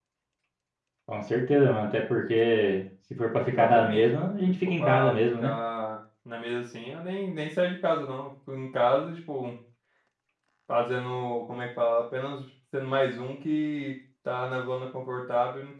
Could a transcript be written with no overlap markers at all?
No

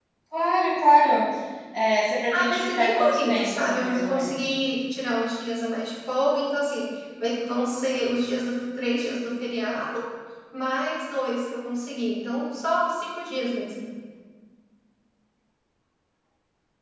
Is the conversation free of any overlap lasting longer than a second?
No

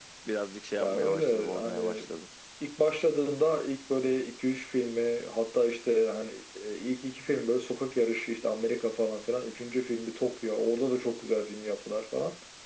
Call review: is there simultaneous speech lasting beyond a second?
Yes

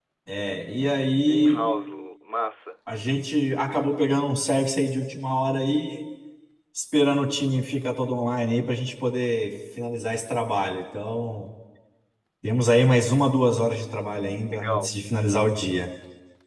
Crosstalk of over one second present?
No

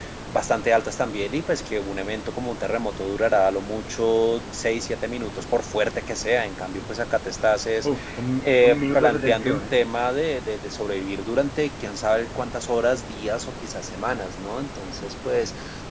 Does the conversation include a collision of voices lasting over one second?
Yes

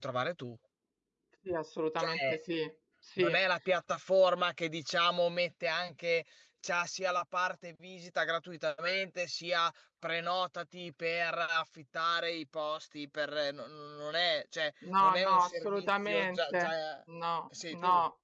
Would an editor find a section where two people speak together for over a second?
Yes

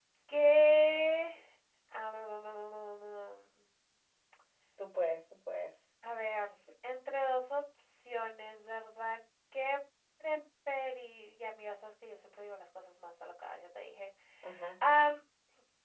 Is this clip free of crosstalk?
Yes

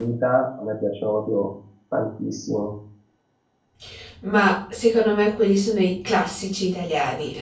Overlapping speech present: No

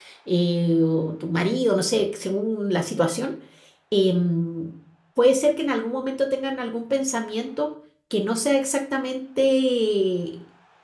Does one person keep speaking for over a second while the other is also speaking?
No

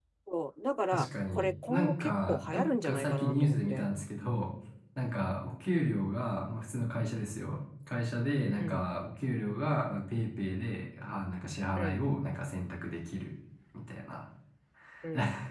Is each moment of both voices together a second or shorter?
No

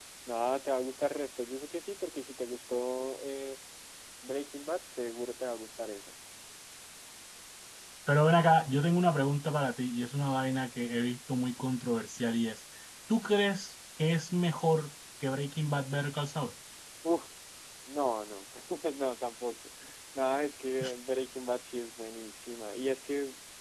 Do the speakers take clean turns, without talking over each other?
Yes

